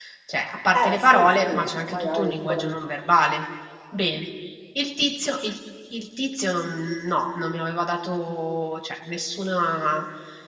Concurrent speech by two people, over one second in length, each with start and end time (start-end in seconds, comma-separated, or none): 0.7-2.8